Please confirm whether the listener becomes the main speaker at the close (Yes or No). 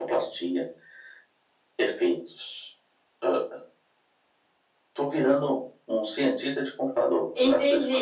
Yes